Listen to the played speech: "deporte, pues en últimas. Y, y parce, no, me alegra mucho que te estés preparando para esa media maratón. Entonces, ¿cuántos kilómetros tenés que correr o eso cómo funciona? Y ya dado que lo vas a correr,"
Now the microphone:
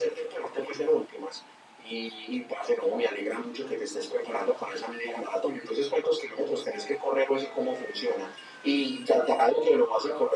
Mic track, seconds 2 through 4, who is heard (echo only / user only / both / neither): echo only